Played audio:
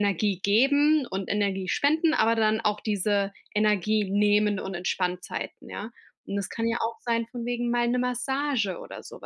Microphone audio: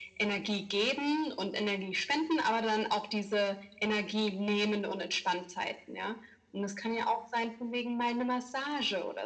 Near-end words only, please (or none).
none